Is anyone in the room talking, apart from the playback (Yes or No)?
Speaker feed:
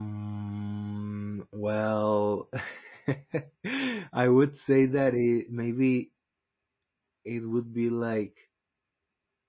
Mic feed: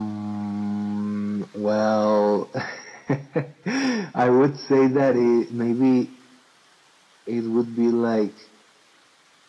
No